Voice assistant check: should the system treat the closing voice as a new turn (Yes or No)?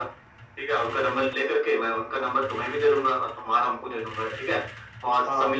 No